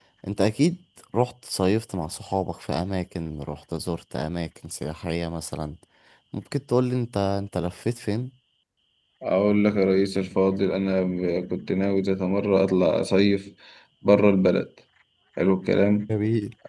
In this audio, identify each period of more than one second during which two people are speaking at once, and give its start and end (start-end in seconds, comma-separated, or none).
none